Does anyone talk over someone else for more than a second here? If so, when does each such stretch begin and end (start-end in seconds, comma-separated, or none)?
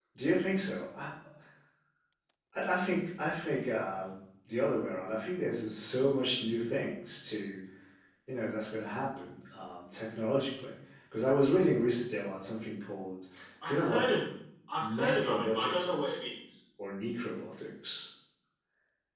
14.8-16.2